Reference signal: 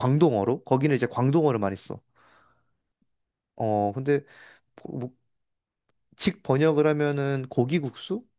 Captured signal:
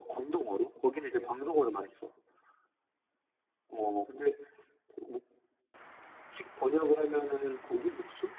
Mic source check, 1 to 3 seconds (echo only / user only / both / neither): echo only